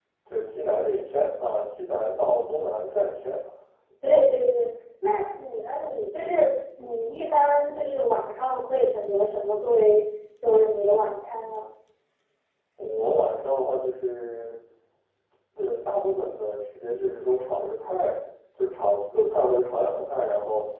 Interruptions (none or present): none